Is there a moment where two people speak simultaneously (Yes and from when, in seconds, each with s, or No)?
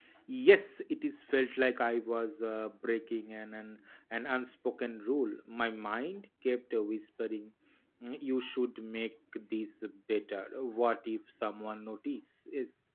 No